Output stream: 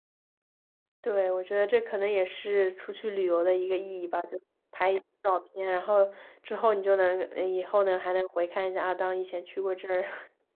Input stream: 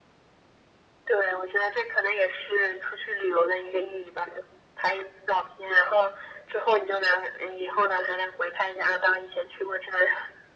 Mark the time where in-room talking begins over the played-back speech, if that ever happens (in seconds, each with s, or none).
none